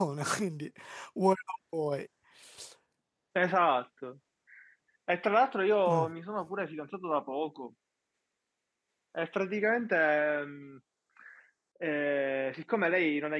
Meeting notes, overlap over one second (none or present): none